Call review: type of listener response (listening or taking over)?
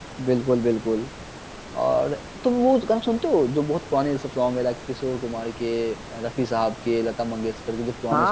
taking over